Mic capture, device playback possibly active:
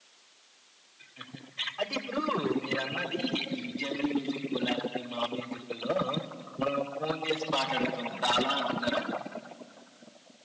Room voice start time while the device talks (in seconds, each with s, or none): none